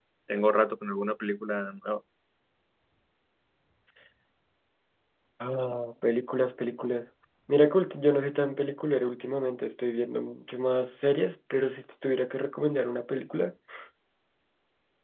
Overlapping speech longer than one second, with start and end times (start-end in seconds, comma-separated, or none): none